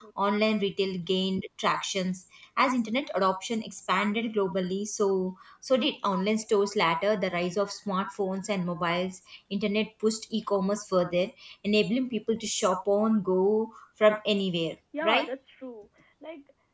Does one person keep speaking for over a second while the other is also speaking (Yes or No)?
No